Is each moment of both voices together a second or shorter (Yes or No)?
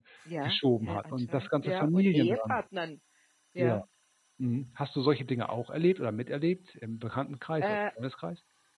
No